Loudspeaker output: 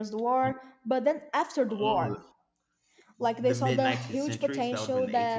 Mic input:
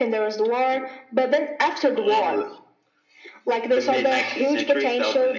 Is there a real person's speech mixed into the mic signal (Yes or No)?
No